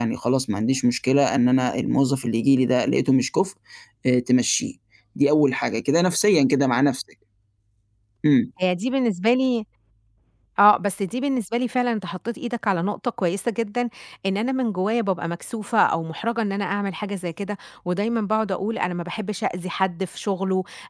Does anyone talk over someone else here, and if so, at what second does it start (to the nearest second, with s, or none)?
none